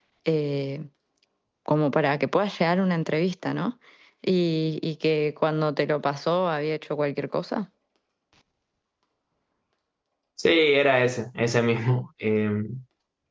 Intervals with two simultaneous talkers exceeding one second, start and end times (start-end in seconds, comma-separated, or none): none